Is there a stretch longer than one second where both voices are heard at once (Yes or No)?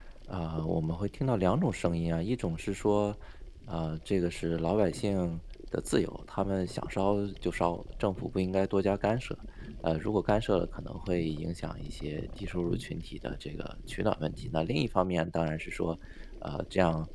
No